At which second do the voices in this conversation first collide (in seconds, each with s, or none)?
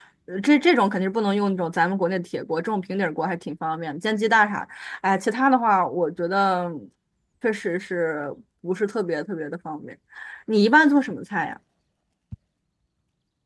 none